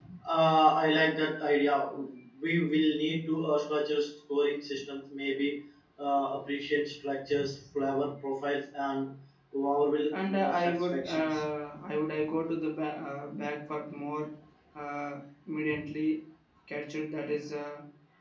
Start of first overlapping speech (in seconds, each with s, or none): 10.1 s